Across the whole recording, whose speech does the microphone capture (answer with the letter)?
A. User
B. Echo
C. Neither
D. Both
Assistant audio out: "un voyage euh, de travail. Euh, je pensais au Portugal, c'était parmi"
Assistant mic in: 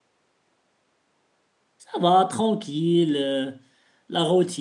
A